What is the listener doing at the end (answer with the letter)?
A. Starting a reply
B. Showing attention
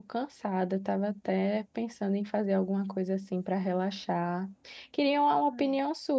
B